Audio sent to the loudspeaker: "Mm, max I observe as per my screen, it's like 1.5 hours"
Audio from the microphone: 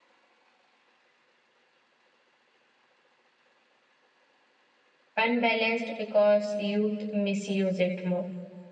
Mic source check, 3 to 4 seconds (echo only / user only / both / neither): neither